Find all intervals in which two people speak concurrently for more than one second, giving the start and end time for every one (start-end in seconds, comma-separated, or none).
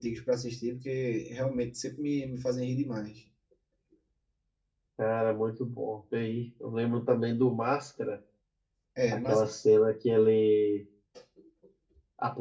none